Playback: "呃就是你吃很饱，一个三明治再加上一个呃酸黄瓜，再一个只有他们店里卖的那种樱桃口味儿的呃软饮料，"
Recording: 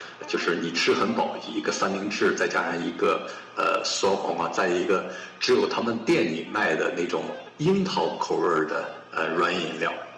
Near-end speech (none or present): none